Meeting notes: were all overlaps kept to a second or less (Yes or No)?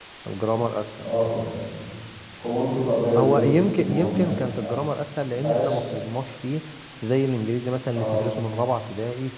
No